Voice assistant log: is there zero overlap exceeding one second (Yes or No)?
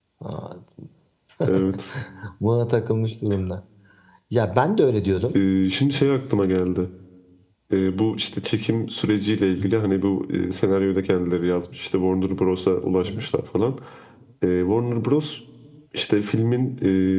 Yes